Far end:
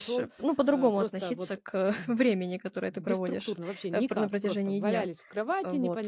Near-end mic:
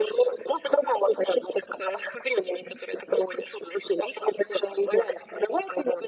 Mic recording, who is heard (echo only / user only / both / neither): echo only